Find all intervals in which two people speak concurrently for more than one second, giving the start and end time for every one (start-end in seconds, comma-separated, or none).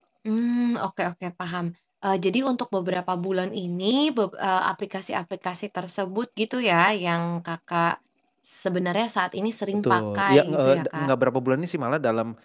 9.7-11.1